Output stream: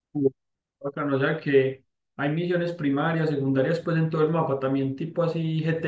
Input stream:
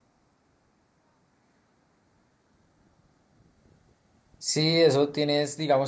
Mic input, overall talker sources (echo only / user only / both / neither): user only